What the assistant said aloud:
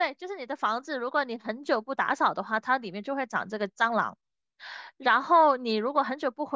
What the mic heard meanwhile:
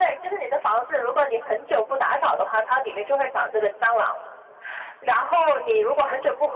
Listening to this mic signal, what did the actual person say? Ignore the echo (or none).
none